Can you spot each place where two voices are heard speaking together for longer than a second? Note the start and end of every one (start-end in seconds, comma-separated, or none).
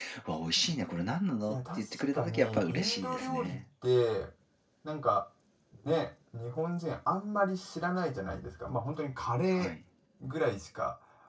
1.5-3.6